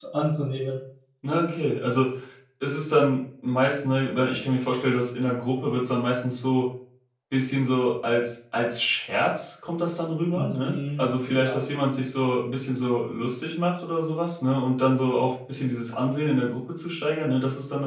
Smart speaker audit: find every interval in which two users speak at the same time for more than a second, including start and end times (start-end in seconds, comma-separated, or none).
10.3-11.6